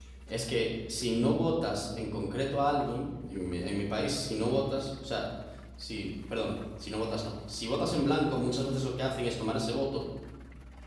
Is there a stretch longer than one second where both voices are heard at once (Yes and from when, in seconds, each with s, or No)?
No